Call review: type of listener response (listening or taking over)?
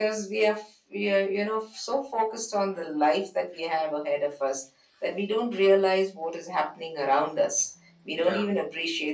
listening